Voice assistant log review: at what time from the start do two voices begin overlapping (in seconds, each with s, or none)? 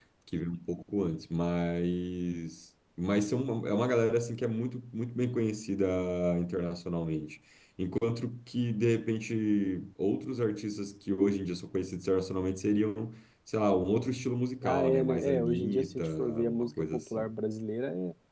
14.6 s